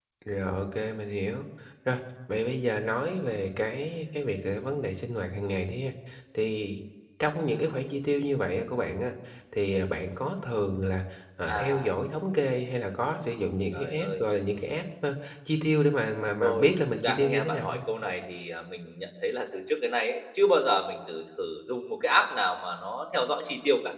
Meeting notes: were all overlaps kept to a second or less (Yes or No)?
No